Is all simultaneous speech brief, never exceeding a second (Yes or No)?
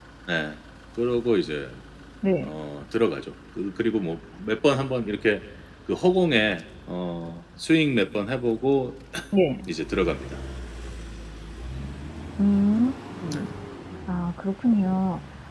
Yes